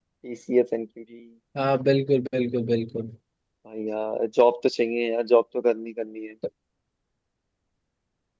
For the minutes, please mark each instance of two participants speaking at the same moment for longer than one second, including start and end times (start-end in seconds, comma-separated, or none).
none